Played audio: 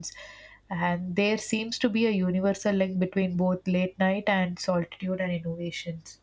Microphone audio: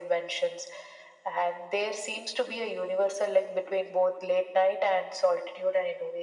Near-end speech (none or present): none